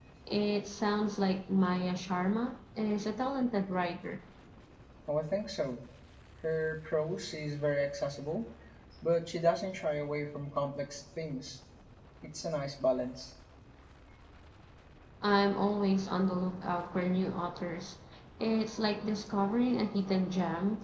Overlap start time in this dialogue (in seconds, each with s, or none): none